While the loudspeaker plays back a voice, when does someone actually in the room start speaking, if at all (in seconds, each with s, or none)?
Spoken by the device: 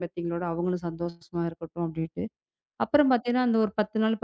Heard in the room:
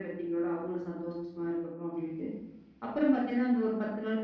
none